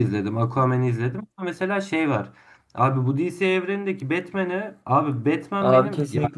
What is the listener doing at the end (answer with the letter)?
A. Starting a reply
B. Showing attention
B